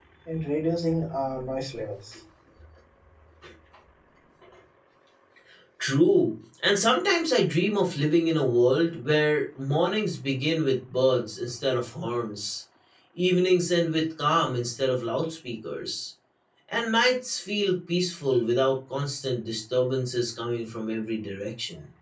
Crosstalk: none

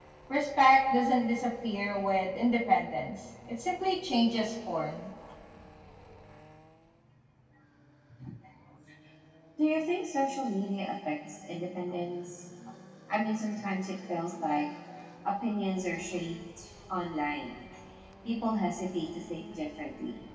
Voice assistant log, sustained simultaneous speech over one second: none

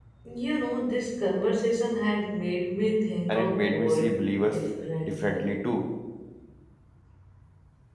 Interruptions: present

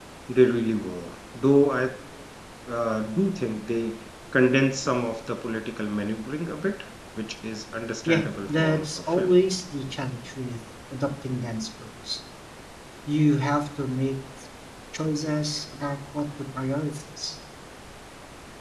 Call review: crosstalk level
present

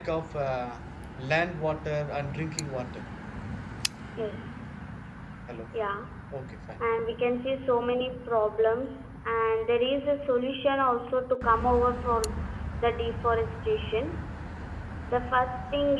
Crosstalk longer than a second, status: none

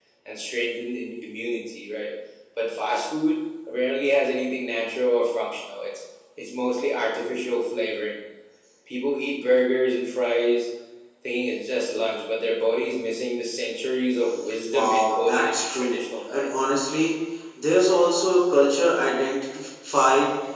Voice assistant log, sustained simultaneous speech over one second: present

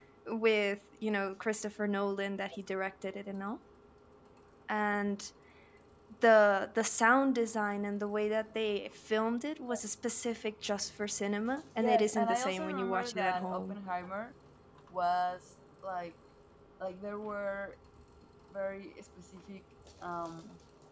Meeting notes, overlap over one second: present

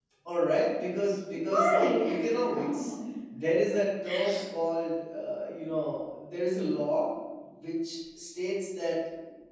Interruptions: present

